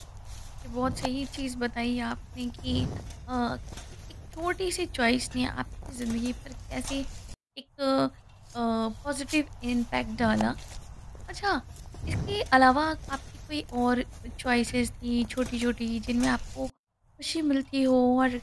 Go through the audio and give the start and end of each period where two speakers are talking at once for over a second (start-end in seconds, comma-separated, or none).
none